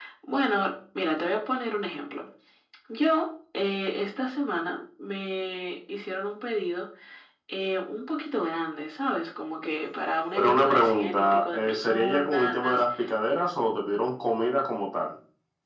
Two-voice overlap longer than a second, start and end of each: 10.3-12.6

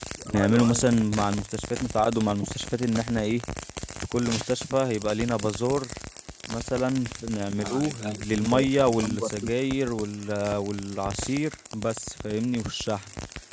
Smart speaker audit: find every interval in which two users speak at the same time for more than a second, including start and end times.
7.6-9.3

